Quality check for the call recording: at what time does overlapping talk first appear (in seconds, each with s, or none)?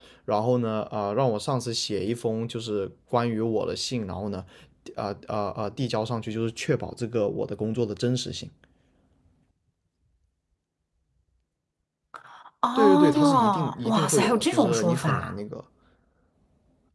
12.8 s